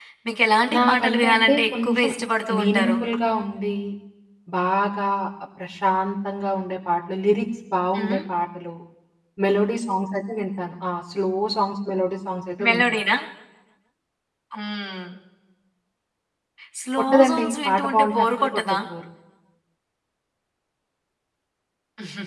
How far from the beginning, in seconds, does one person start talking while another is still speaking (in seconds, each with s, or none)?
0.8 s